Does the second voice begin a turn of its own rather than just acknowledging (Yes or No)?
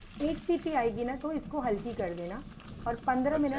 No